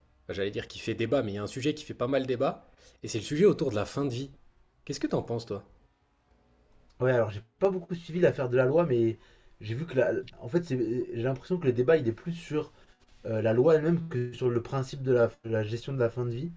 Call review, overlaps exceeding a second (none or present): none